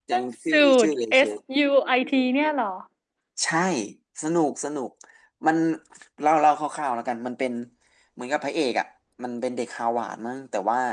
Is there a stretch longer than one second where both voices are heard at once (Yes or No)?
Yes